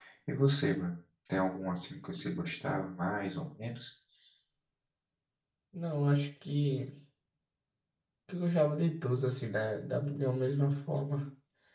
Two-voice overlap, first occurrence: none

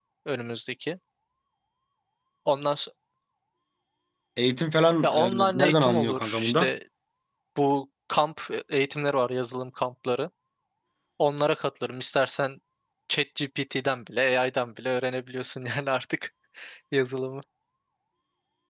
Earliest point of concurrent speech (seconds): 5.0 s

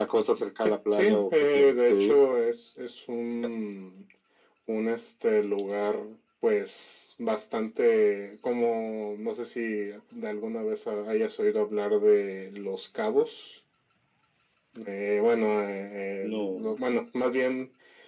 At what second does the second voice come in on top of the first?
0.6 s

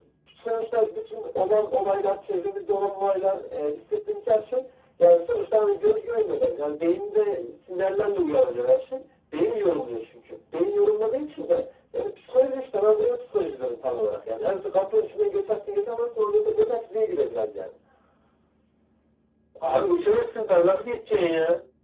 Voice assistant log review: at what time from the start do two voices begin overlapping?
none

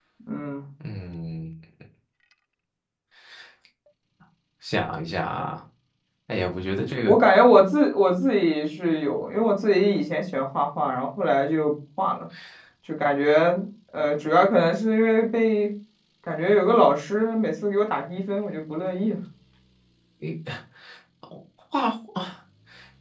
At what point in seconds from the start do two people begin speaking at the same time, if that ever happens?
none

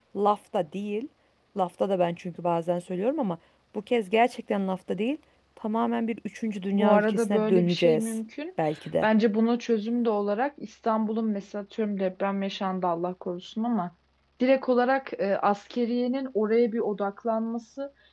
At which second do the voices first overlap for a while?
6.7 s

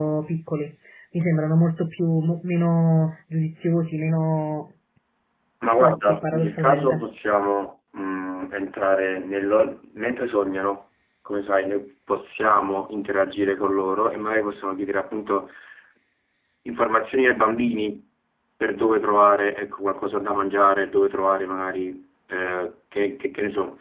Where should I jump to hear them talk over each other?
5.7 s

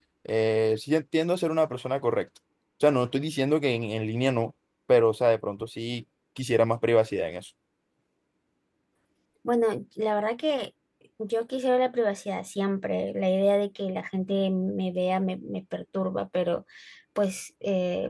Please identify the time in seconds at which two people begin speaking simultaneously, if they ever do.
none

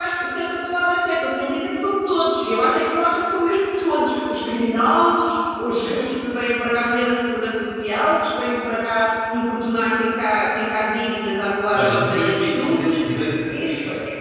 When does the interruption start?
11.7 s

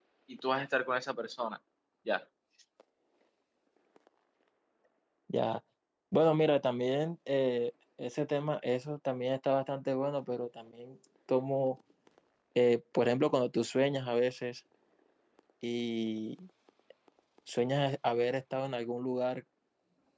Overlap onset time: none

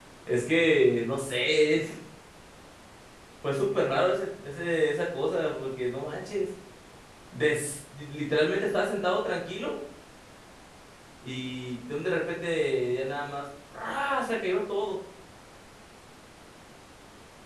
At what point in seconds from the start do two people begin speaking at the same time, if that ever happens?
none

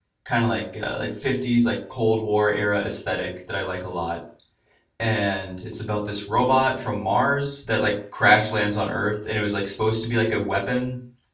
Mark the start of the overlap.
none

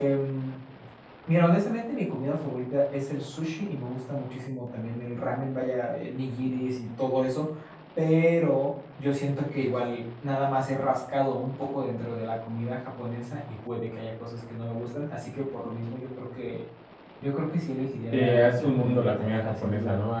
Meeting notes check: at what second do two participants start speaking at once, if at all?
18.1 s

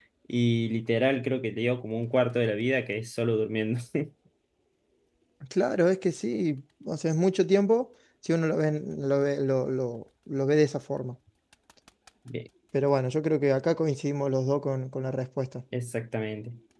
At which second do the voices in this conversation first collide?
none

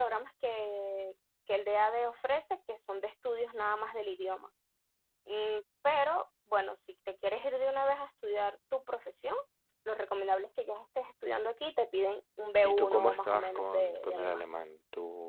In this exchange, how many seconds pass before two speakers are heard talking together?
12.6 s

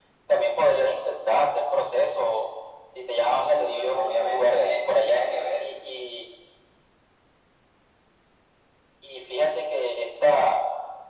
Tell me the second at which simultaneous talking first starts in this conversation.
3.4 s

